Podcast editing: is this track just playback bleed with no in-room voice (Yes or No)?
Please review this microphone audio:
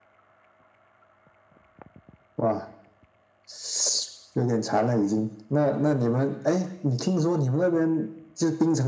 Yes